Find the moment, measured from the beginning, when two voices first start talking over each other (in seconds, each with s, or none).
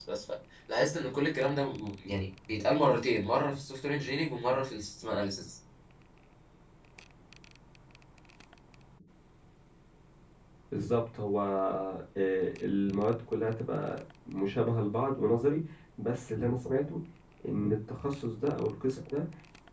none